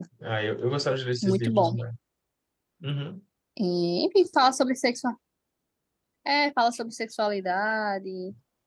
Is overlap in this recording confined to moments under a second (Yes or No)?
Yes